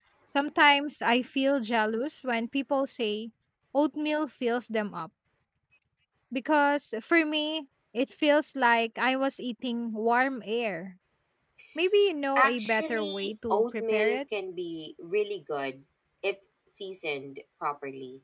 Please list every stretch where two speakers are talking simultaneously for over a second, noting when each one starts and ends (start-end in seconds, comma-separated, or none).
12.4-14.2